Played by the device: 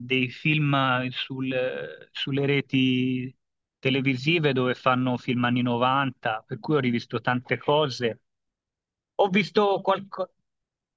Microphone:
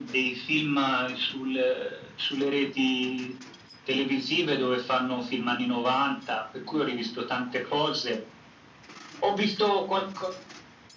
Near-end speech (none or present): none